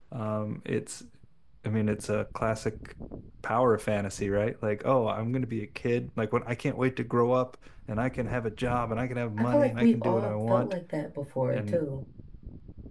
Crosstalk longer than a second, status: present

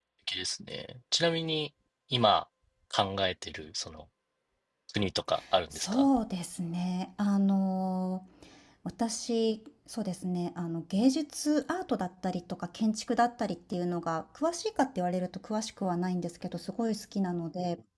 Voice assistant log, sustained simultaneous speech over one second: none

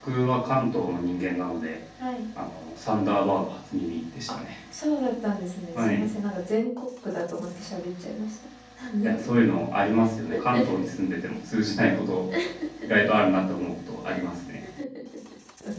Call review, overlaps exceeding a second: none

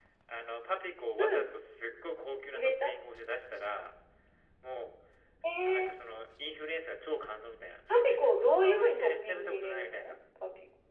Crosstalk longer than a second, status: present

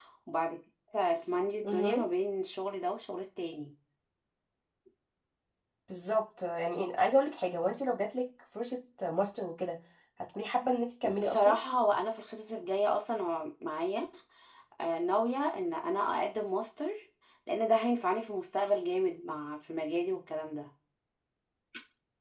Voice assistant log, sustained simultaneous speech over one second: none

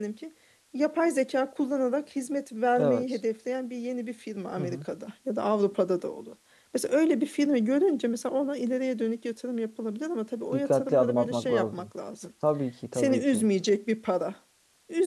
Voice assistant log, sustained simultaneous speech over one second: present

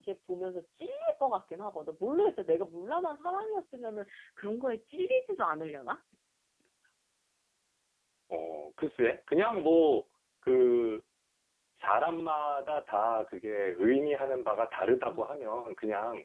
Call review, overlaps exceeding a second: none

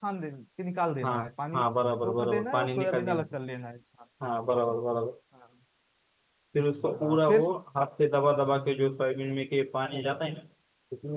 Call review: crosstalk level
present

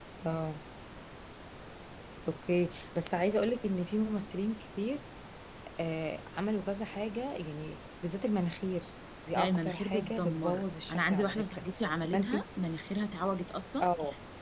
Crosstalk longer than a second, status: present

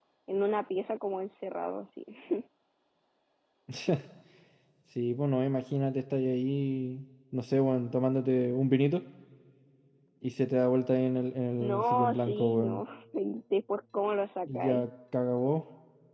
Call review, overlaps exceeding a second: present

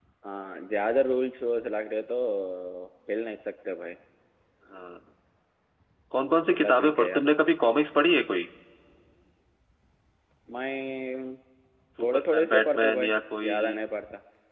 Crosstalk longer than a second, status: present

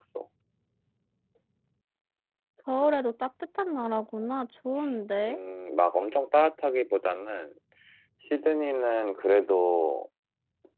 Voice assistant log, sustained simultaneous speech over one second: none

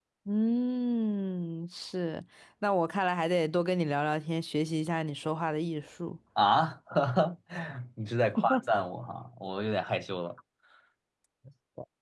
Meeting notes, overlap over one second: none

